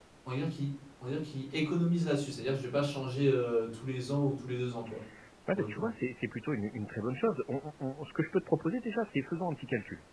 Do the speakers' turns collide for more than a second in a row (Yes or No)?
No